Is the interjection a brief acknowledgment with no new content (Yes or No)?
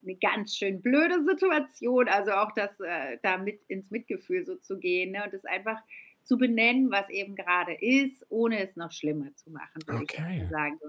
Yes